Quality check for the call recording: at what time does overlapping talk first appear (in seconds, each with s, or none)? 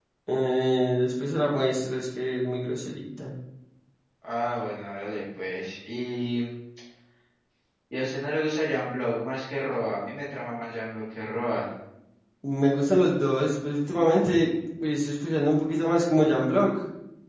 none